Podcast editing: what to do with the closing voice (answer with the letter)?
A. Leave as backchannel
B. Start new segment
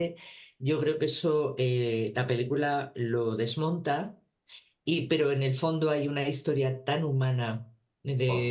A